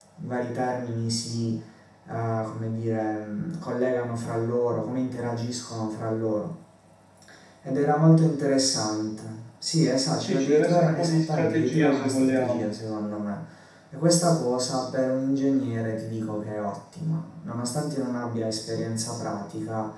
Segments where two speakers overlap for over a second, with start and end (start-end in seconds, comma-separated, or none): 10.2-12.7